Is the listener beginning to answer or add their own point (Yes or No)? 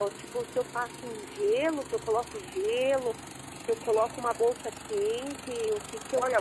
Yes